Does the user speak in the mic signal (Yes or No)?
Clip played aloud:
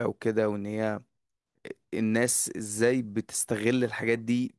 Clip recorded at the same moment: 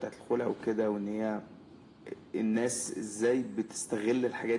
No